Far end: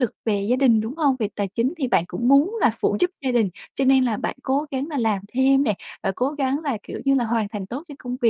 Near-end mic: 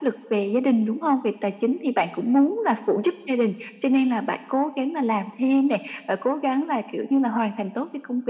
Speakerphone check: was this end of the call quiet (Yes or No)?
Yes